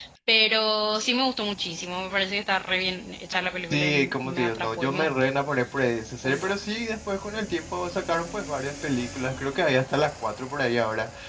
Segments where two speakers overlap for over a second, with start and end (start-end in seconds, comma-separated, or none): 3.7-5.1